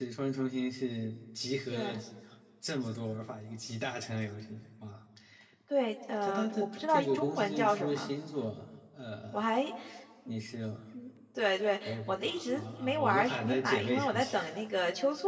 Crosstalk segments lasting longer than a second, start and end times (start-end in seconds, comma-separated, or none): 6.2-8.1, 11.8-14.4